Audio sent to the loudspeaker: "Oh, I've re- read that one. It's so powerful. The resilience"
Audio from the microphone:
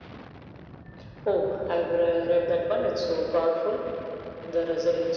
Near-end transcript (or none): none